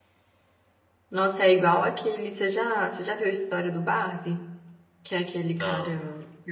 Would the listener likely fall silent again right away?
Yes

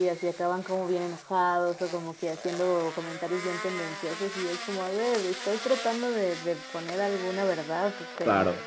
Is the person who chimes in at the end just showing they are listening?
Yes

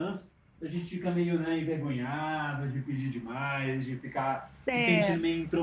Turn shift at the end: No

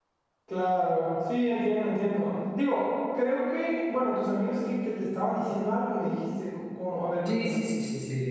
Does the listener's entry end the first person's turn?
Yes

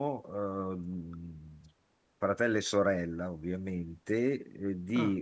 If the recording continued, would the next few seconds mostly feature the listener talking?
No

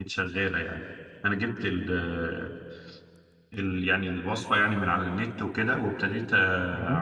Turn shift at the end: No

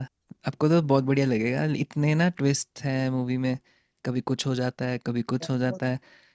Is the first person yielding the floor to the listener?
No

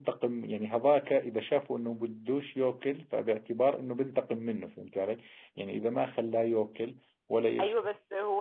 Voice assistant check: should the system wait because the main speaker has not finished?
No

